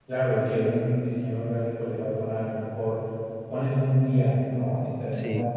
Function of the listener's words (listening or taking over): listening